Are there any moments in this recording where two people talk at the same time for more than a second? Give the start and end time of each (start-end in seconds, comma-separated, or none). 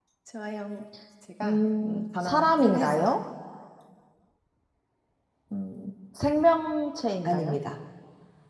1.4-3.1